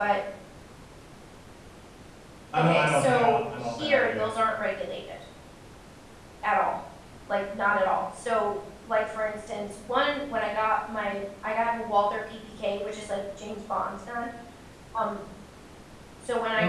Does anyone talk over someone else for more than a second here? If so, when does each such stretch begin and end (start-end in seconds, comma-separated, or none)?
2.6-4.3